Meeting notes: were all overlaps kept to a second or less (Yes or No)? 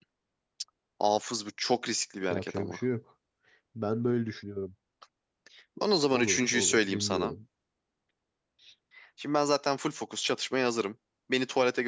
No